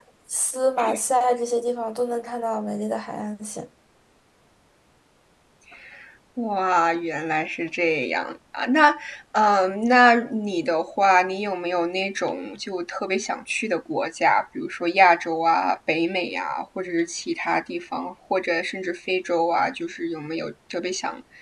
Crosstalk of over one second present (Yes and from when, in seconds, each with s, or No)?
No